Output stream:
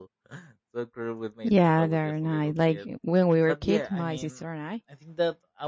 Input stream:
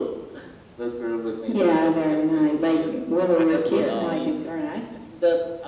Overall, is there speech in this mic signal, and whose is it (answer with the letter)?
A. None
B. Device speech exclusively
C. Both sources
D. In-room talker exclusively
C